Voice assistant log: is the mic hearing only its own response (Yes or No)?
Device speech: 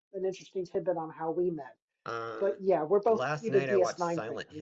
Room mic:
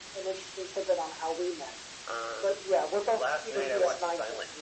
Yes